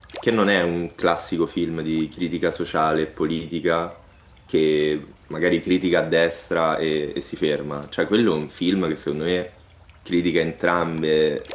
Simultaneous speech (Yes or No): No